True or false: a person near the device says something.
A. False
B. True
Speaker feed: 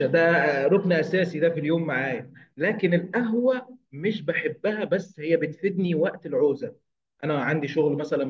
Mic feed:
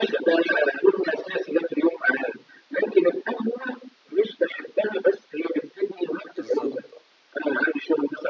B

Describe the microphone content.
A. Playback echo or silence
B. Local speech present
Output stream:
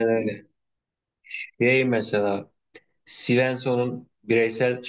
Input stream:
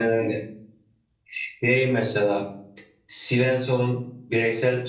A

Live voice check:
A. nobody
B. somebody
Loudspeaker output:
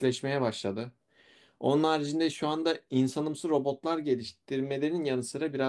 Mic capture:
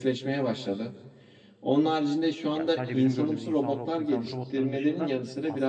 B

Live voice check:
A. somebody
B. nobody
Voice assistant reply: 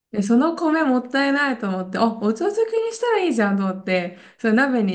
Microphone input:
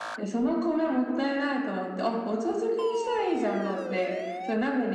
B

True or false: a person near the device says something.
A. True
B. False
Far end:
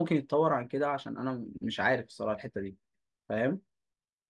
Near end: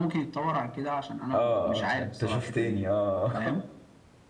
A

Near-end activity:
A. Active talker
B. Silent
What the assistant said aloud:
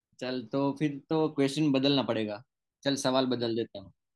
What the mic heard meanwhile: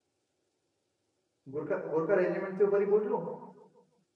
A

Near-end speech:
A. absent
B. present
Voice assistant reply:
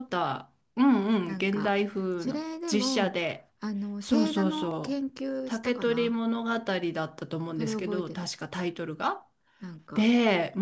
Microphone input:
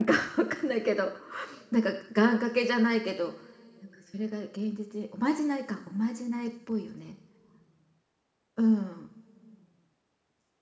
B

